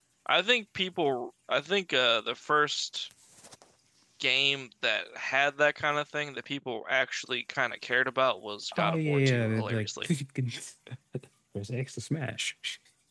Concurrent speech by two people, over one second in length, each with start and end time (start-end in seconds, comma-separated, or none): 8.8-10.1